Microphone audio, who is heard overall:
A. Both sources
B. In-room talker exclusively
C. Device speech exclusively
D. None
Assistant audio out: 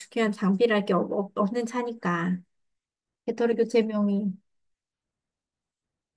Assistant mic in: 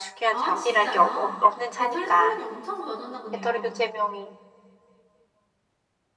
A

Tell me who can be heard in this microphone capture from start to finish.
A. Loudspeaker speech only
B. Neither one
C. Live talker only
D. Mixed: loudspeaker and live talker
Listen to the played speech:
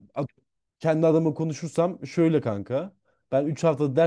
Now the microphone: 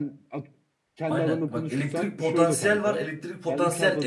D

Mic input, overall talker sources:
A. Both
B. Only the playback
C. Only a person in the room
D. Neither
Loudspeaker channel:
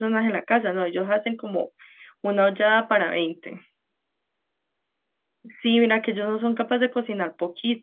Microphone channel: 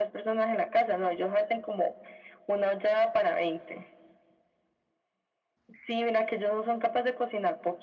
B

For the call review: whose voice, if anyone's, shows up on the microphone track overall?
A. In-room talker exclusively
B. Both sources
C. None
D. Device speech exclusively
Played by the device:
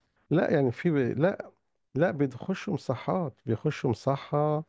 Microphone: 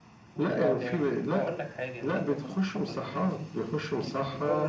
B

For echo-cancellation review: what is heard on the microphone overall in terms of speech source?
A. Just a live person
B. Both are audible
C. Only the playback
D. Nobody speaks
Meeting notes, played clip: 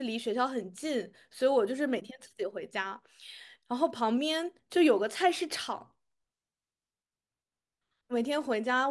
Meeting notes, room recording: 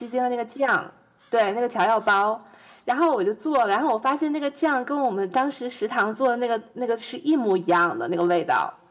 A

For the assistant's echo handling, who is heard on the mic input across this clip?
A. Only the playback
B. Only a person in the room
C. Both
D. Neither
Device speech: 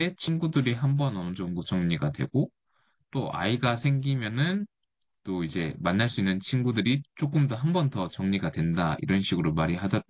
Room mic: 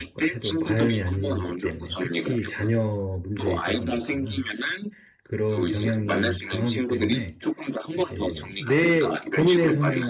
C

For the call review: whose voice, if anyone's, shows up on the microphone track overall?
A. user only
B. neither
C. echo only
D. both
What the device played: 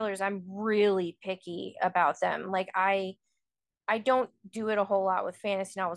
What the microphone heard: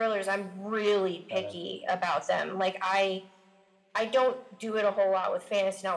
D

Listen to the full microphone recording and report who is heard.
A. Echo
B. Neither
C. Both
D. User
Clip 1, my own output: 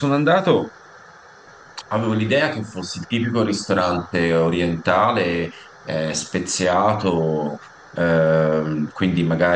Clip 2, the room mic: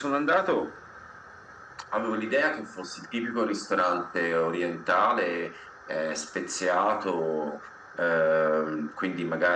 A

